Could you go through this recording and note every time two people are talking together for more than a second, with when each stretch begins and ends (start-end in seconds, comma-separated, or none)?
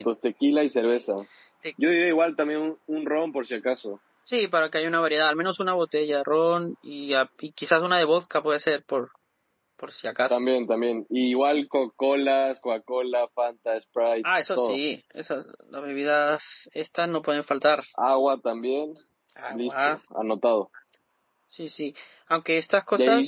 none